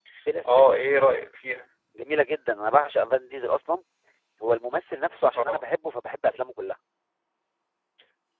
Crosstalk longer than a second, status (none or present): none